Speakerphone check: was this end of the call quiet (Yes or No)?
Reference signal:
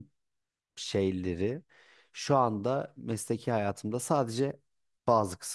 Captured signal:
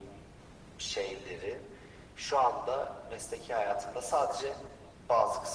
Yes